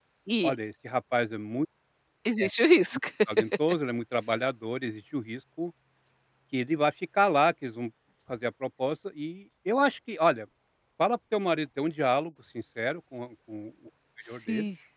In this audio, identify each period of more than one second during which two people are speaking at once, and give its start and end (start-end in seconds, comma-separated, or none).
none